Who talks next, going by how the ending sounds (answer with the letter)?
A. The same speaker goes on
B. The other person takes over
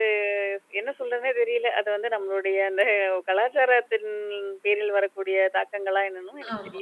B